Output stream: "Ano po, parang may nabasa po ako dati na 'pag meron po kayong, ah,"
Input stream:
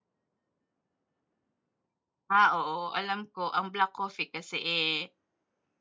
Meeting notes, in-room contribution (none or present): present